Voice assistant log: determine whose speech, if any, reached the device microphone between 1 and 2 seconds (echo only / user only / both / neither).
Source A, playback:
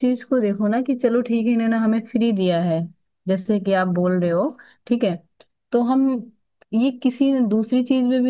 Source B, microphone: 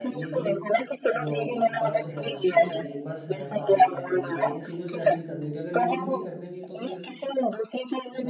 both